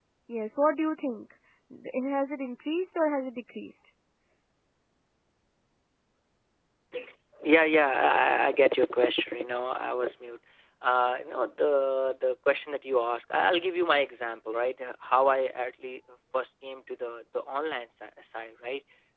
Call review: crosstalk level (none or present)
none